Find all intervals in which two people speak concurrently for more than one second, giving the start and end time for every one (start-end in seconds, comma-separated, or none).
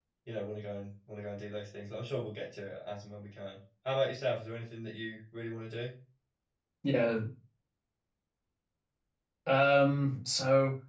none